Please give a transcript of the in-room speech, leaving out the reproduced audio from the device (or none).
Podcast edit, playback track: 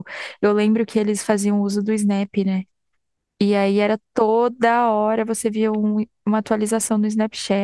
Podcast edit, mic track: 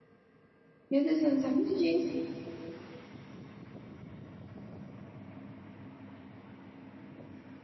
Meu Deus, eu não sabia disso.